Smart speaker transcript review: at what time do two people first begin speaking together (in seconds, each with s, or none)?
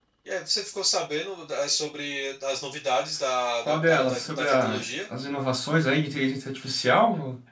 3.6 s